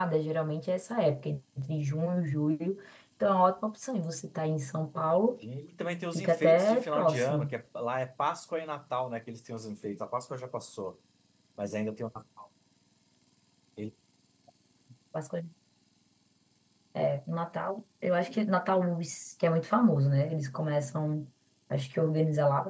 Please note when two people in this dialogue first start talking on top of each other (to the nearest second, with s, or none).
6 s